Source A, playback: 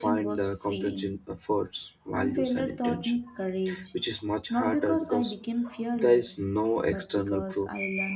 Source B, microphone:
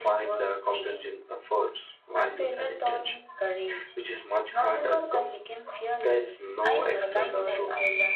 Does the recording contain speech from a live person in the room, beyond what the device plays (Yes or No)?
Yes